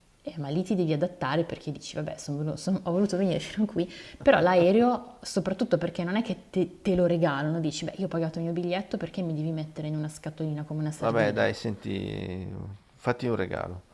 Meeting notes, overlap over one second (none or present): none